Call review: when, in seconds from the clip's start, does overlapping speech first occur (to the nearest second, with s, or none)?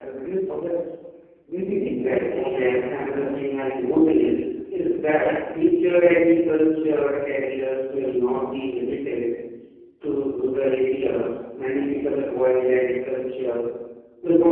2 s